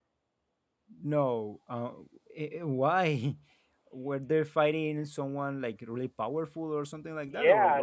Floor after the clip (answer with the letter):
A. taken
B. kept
A